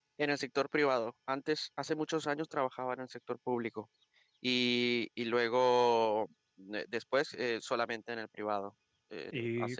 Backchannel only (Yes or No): No